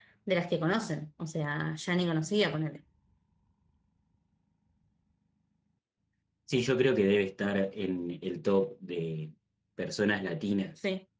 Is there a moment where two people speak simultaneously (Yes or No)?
No